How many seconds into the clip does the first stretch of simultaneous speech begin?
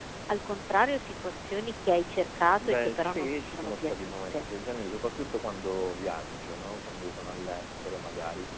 2.6 s

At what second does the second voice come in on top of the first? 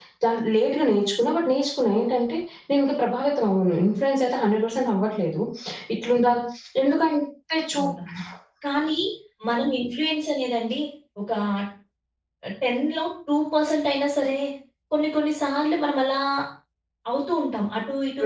none

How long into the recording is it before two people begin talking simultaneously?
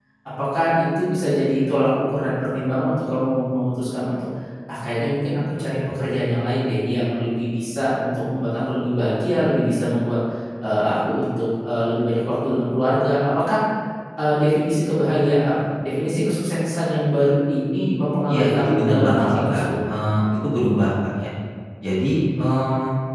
18.3 s

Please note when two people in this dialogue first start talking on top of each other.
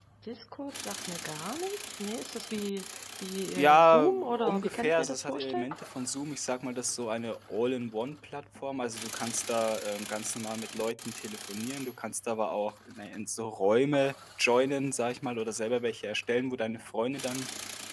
3.6 s

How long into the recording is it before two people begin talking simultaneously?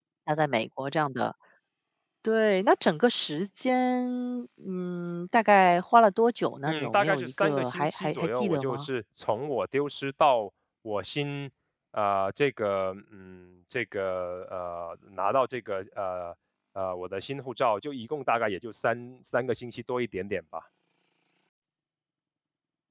6.7 s

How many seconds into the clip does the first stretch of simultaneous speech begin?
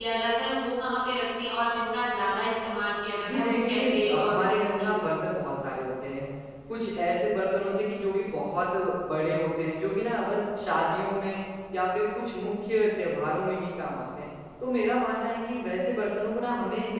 3.2 s

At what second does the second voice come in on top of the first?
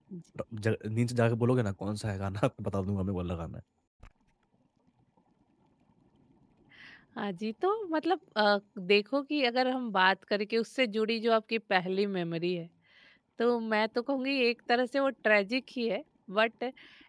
none

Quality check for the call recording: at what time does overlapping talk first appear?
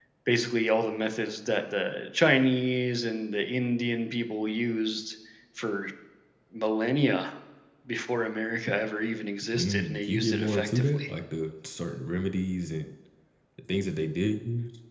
9.5 s

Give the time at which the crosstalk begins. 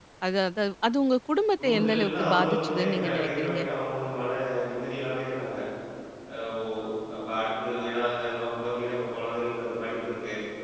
1.6 s

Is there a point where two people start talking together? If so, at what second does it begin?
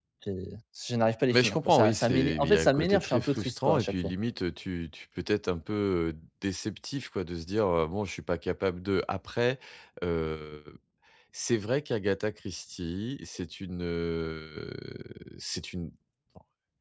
1.3 s

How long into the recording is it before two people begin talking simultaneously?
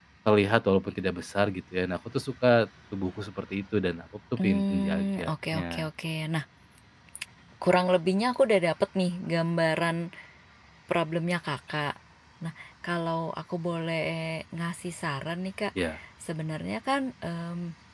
4.4 s

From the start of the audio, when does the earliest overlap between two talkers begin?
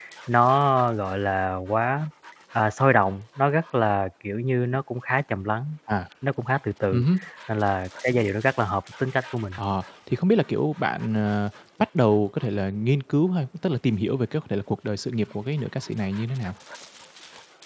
none

